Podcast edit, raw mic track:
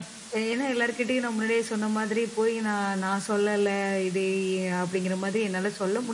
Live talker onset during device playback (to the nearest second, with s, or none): none